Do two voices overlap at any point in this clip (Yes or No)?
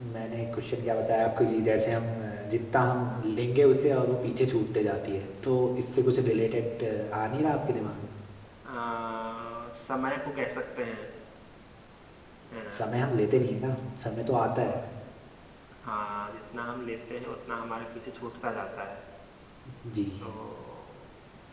No